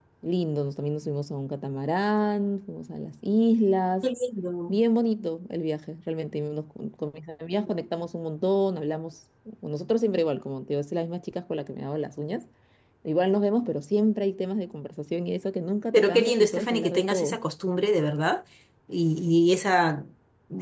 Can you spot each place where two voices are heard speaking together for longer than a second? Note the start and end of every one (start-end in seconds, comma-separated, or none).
15.9-17.4